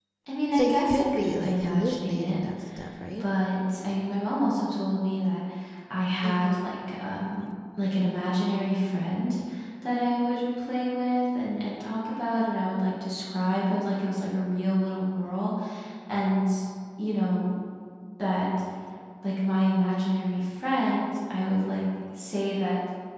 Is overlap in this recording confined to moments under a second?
No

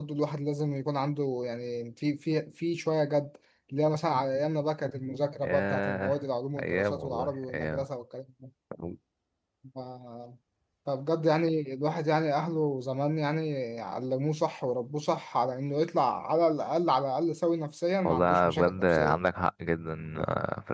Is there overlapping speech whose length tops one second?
Yes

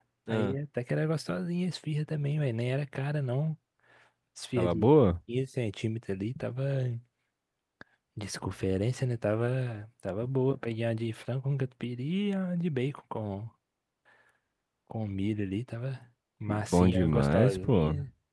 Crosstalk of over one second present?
Yes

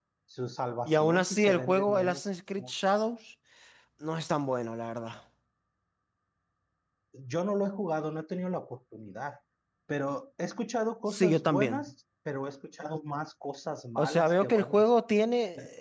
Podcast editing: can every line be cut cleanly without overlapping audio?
No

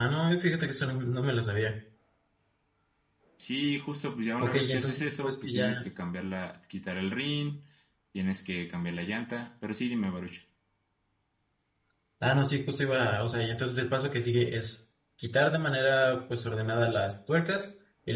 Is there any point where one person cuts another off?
Yes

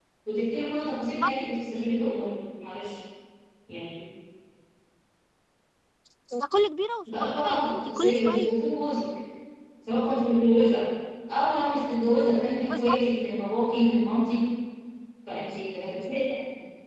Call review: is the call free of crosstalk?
No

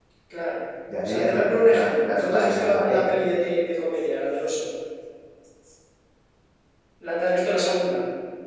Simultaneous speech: Yes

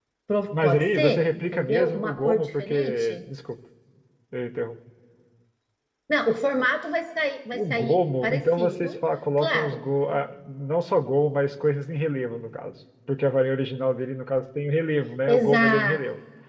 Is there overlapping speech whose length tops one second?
Yes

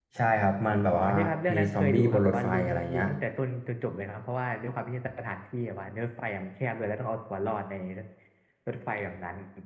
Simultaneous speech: Yes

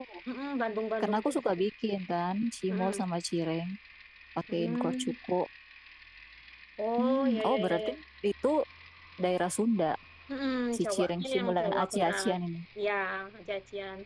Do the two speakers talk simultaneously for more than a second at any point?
Yes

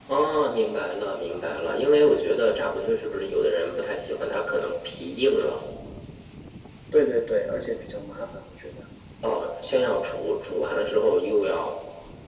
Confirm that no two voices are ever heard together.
Yes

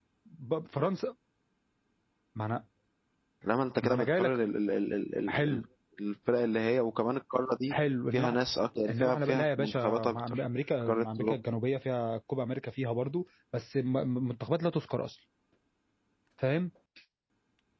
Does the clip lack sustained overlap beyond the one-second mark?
No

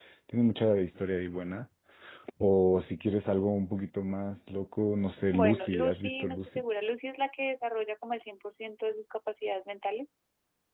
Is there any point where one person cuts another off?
Yes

